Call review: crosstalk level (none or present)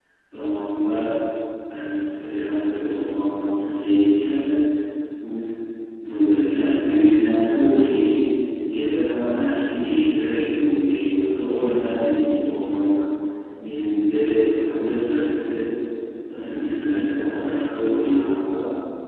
present